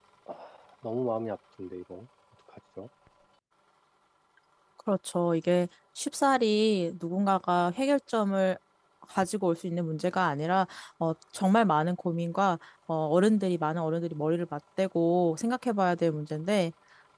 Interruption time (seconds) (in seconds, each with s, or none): none